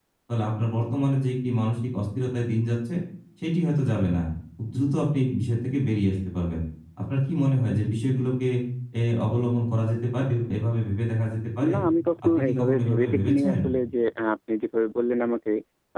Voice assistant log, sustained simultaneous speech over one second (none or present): present